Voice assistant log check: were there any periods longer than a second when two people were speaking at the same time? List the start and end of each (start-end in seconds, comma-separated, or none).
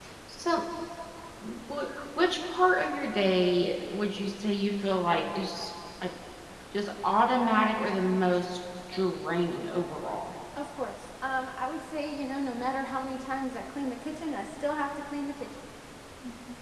none